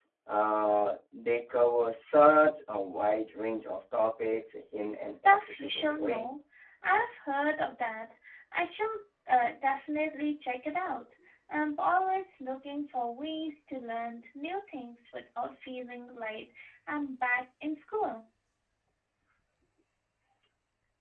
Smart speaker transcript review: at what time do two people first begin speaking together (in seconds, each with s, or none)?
5.0 s